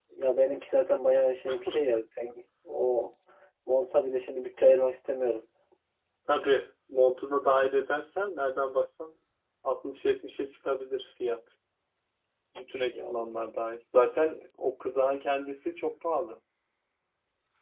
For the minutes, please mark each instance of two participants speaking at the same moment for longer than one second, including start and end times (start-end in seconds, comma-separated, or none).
none